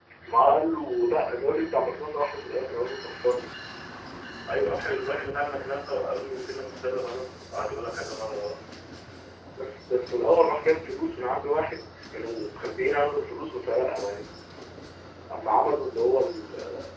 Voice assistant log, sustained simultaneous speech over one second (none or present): none